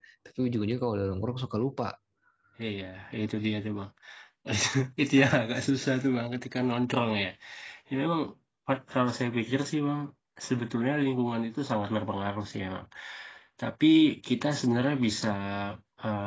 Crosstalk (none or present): none